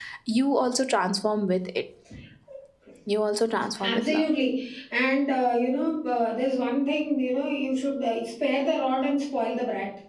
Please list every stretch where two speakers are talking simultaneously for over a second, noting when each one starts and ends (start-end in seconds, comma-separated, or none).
none